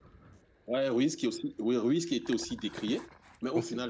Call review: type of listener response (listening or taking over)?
listening